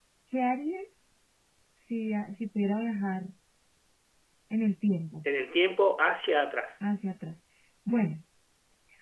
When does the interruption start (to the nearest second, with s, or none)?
none